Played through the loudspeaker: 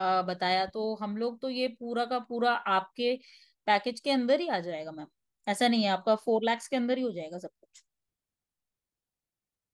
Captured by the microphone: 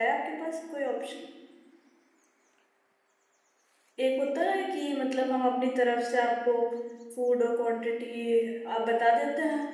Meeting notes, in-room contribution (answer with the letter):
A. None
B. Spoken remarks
B